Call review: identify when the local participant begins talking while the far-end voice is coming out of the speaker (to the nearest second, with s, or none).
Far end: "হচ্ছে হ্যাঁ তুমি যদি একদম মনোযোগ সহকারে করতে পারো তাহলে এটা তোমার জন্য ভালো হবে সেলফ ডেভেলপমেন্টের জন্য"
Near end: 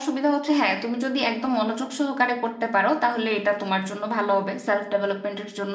none